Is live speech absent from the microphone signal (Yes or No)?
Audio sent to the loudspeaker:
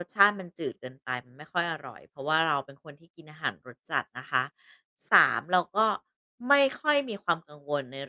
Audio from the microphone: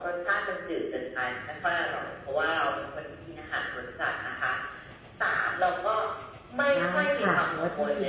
No